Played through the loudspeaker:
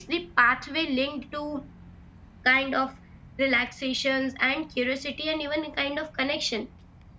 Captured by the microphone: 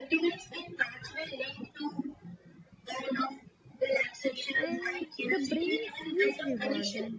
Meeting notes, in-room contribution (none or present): present